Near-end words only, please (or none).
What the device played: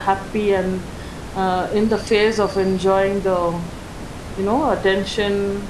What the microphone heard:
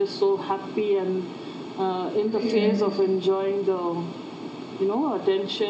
yeah.